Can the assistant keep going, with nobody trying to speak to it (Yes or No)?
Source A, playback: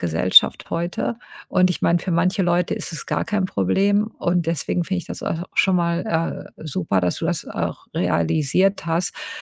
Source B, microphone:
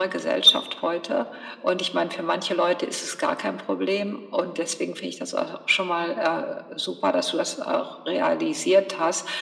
Yes